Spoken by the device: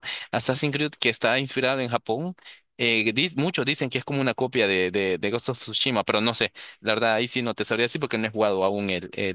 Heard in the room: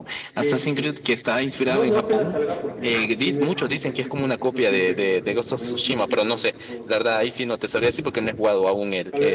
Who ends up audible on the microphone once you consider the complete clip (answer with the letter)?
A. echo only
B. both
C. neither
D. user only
B